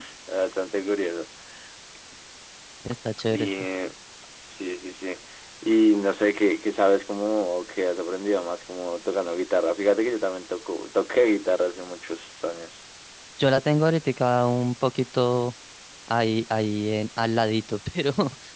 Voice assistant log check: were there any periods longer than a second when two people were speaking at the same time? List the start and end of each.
none

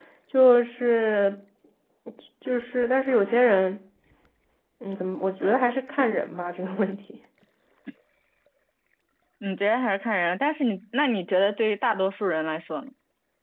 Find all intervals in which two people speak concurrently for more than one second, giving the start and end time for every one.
none

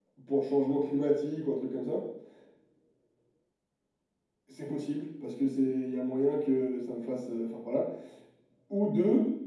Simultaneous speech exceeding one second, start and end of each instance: none

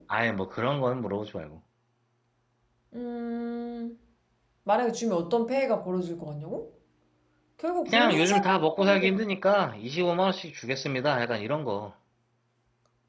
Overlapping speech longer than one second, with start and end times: 7.9-9.2

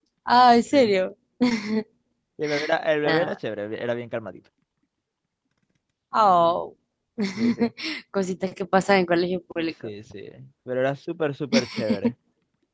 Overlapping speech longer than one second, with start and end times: none

